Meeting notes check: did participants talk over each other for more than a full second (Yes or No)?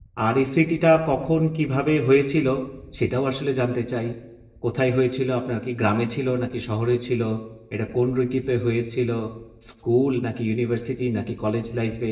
No